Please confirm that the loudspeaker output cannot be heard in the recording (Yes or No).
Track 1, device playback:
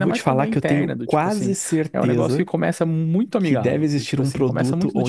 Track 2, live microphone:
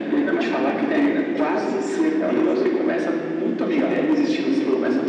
No